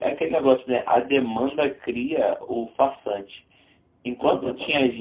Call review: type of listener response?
listening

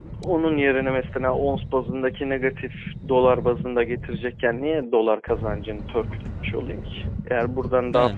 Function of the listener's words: listening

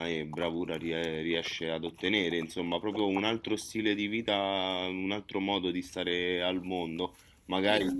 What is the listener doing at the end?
listening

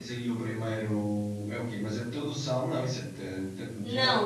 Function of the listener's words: taking over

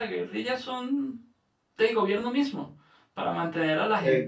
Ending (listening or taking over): listening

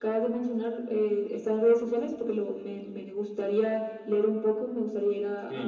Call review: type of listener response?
taking over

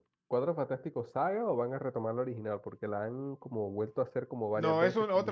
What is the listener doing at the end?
taking over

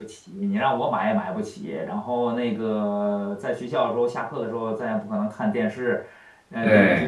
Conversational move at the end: listening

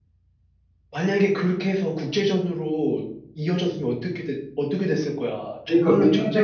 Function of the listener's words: taking over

